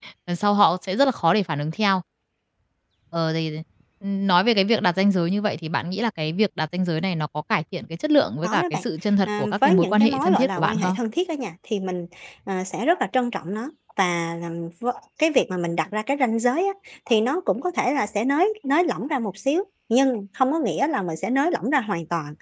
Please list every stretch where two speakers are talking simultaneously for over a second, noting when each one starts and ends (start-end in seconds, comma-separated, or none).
9.3-11.0